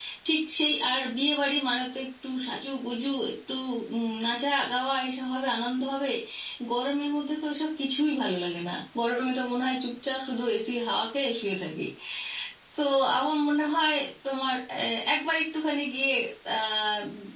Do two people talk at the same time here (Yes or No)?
No